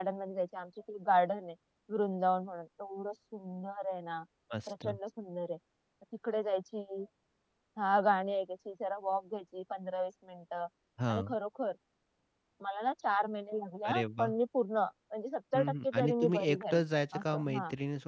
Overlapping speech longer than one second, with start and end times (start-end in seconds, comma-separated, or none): 15.5-16.8